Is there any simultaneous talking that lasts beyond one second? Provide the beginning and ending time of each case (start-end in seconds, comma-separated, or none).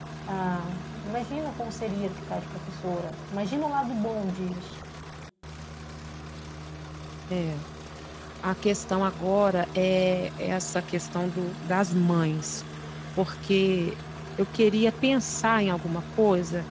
none